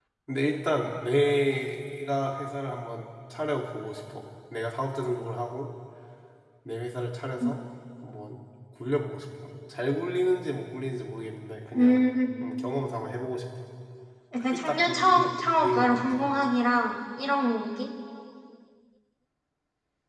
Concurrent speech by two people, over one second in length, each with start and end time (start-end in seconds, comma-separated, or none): 14.5-16.2